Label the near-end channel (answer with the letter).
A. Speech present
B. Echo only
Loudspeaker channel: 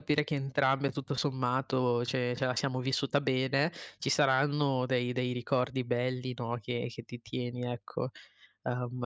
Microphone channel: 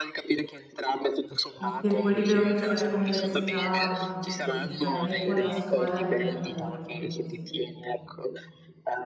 A